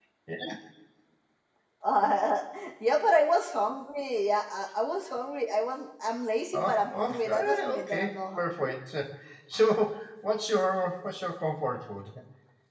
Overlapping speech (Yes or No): Yes